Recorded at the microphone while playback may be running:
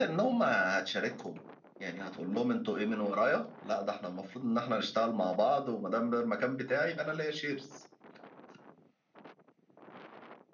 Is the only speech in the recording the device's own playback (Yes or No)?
Yes